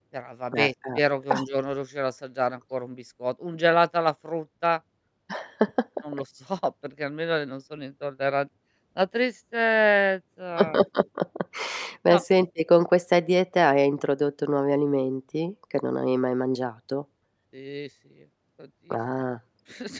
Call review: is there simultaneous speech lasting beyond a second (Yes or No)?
No